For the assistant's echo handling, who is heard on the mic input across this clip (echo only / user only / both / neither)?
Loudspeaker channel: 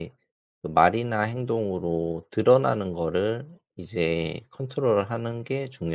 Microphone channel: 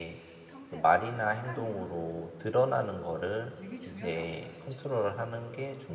both